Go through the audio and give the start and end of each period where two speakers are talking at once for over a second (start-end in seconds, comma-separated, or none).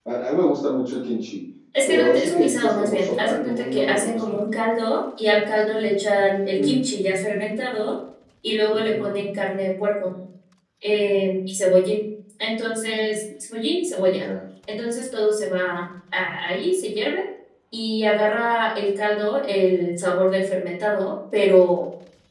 1.9-4.4